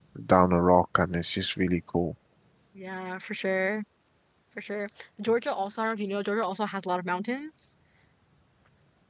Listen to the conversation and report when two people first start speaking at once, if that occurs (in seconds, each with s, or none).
none